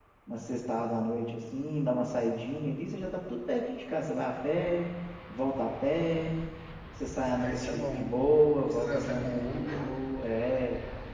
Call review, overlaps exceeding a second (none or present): present